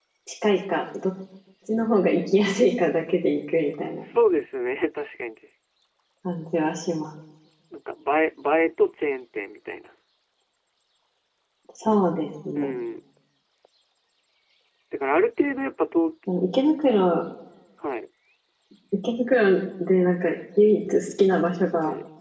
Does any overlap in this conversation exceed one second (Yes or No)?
No